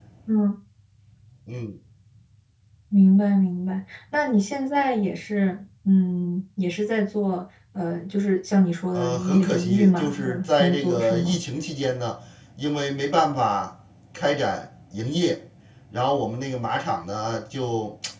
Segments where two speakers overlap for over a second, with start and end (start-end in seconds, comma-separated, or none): 9.0-11.4